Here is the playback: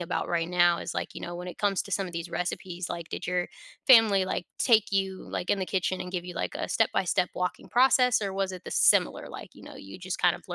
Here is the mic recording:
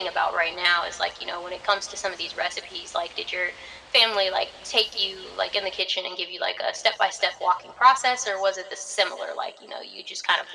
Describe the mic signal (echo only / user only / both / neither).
echo only